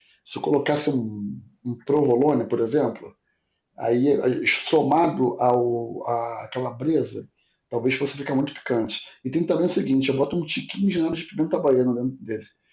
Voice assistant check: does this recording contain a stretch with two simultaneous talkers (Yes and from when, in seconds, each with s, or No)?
No